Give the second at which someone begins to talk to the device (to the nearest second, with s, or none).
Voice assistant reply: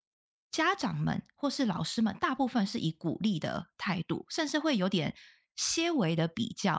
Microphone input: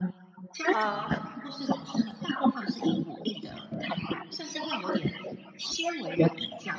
1 s